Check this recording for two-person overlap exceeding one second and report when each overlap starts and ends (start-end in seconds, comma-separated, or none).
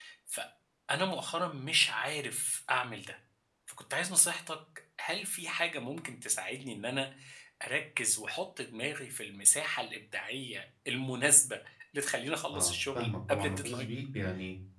12.5-13.9